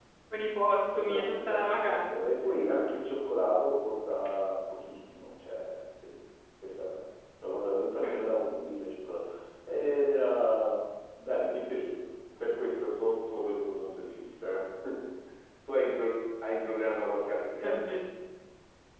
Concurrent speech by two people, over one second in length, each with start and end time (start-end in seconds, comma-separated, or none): 0.9-2.3